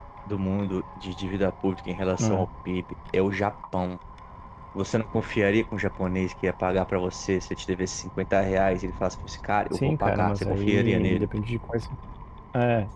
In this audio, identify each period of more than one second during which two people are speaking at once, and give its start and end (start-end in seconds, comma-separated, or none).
9.7-11.3